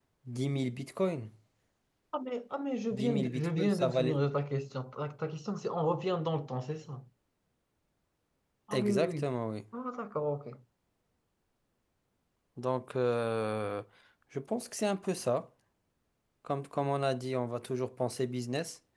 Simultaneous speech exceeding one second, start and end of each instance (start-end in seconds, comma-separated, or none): 2.9-4.2